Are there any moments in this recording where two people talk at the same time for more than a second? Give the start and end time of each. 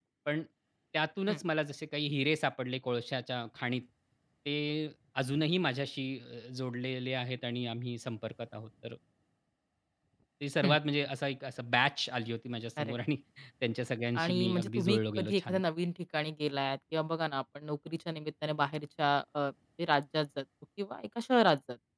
14.2-15.6

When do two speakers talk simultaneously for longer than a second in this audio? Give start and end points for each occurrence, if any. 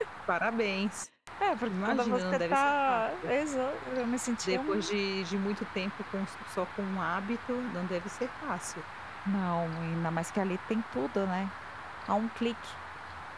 1.7-3.3

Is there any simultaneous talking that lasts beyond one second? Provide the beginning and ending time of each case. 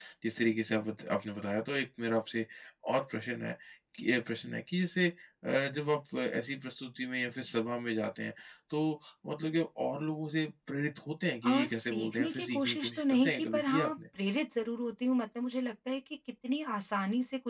11.4-13.9

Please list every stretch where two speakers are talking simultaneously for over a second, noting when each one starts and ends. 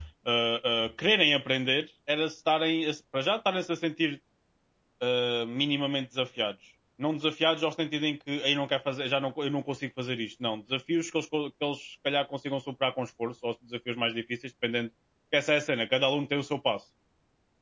none

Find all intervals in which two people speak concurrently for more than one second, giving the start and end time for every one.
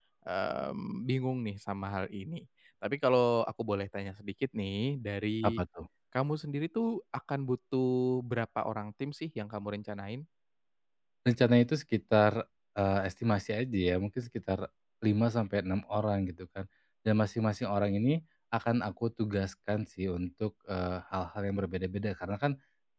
none

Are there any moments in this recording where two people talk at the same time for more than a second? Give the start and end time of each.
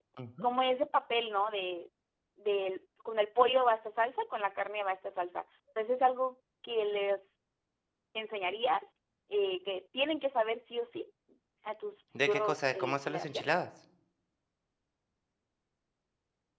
12.2-13.4

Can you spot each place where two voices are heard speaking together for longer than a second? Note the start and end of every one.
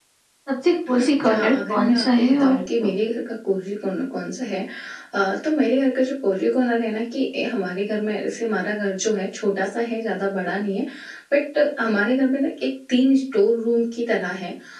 0.9-2.9

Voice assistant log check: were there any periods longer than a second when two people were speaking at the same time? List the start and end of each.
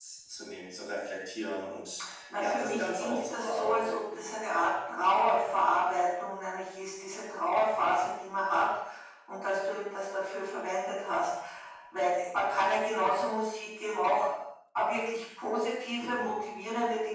2.4-4.3

